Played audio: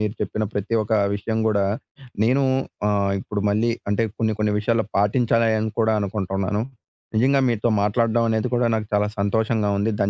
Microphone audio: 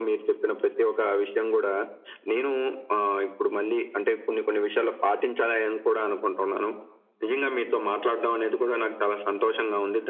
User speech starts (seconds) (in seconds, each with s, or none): none